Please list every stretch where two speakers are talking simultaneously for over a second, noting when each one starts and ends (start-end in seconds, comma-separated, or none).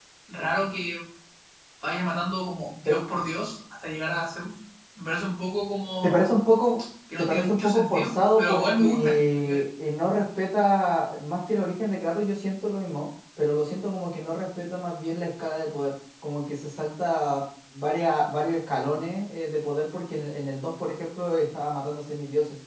7.2-9.6